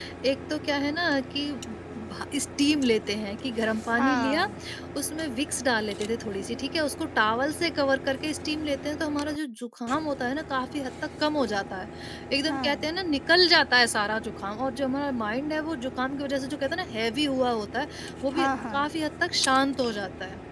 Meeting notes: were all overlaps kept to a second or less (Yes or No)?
Yes